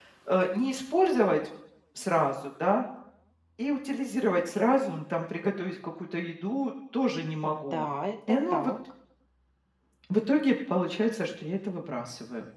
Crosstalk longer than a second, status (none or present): none